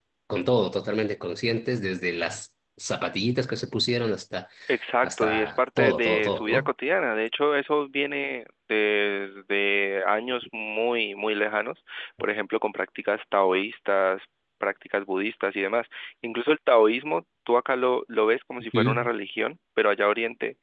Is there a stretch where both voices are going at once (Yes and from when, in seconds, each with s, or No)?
Yes, from 5.0 s